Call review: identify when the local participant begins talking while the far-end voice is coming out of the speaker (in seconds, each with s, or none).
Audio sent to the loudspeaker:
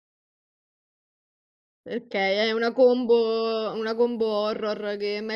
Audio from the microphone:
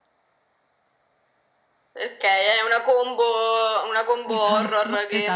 4.3 s